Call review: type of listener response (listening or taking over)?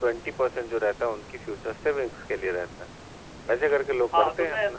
taking over